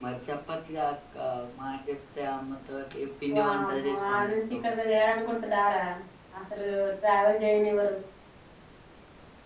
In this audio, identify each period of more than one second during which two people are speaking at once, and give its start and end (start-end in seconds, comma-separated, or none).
3.3-4.6